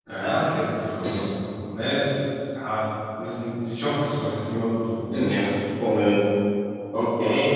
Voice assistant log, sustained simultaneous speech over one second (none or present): none